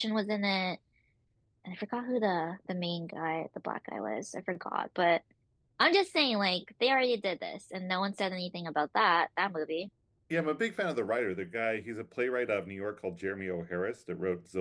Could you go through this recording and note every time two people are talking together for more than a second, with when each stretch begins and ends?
none

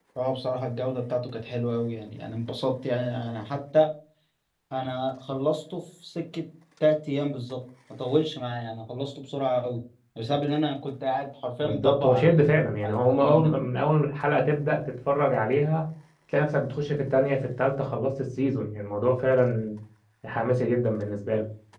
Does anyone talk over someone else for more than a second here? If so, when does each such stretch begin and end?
11.6-13.5

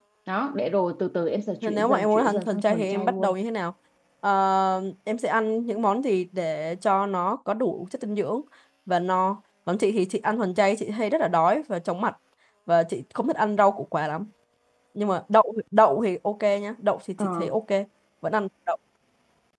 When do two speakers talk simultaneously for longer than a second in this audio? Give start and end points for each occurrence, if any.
1.6-3.3

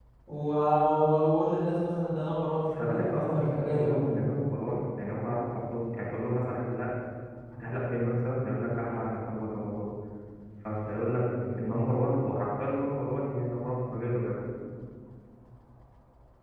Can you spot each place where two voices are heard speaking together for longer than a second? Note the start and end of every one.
2.8-4.1

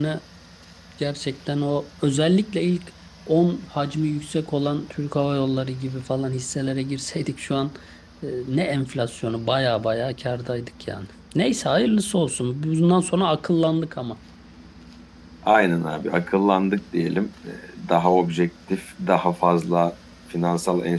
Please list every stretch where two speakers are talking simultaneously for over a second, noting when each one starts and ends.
none

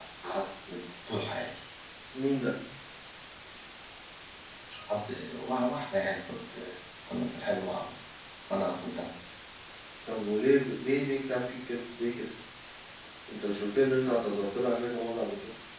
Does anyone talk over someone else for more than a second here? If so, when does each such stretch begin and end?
none

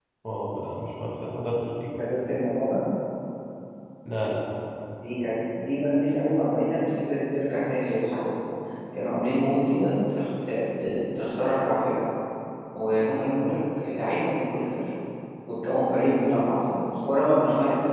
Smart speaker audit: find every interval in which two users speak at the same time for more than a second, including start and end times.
none

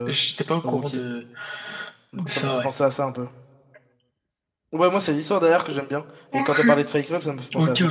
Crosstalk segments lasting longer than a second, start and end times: none

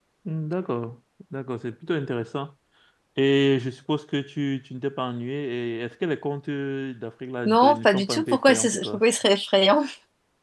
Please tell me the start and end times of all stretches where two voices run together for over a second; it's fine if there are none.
7.5-9.0

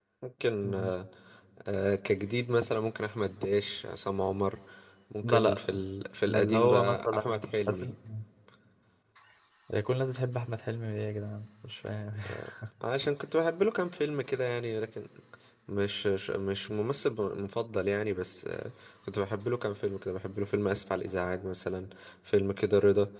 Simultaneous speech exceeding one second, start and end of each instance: 6.2-7.9

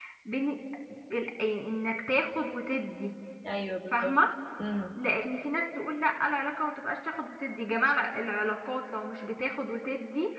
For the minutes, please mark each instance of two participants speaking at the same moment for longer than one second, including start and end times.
none

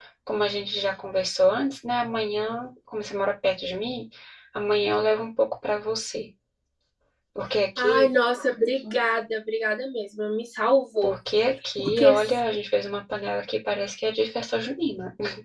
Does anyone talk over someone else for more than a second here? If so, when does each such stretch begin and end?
none

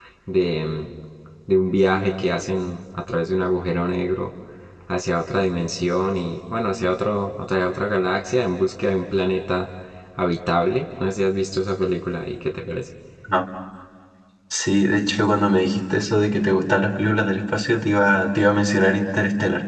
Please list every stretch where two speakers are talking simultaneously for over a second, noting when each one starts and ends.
none

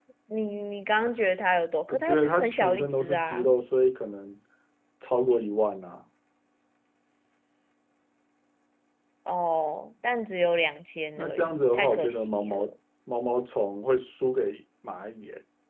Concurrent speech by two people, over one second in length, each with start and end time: 1.9-3.5, 11.2-12.7

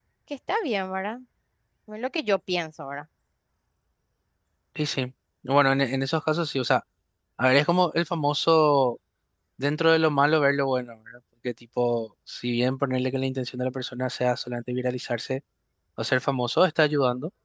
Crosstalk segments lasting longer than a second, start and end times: none

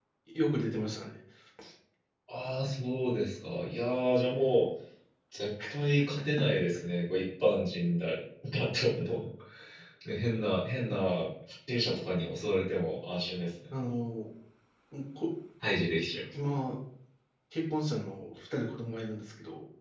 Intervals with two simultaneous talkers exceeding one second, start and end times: none

